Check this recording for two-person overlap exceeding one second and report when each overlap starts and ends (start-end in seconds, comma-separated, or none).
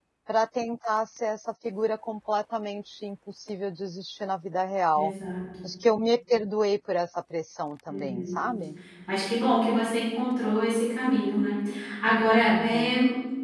none